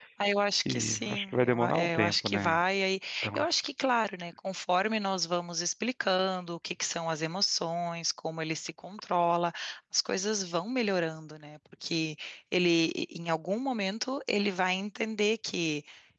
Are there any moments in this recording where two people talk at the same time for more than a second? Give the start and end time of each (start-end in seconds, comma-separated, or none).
0.7-2.6